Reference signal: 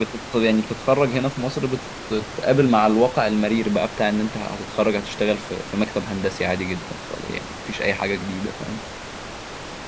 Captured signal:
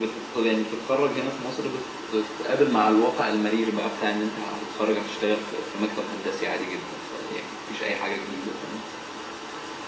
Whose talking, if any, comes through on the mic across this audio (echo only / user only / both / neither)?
echo only